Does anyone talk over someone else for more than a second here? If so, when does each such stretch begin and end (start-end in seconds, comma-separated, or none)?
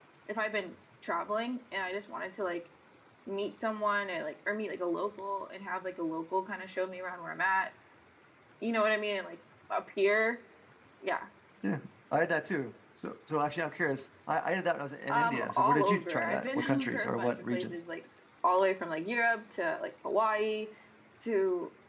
15.1-17.8